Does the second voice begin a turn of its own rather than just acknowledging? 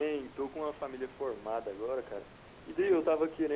No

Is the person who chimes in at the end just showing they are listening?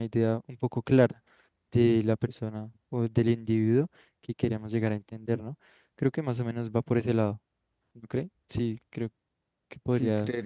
No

